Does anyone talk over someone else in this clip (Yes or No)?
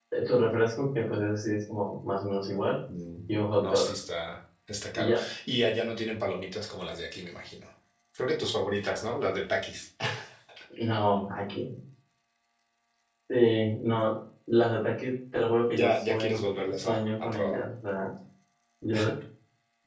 Yes